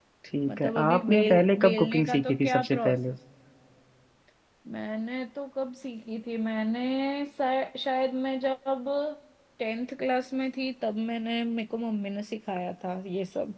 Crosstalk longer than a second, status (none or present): present